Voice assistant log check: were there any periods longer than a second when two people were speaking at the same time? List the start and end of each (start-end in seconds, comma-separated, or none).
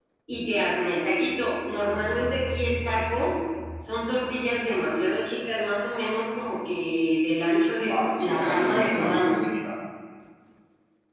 7.9-9.3